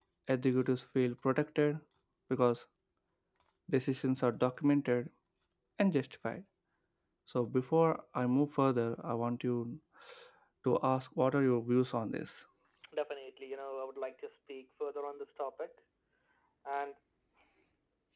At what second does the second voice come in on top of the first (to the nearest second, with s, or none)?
none